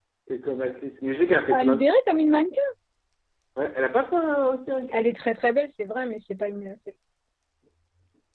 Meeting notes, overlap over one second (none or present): none